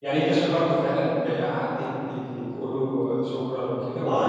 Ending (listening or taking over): taking over